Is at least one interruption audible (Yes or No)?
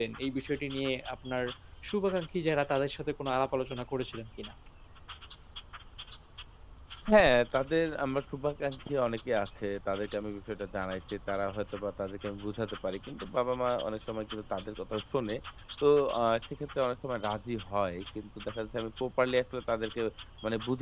No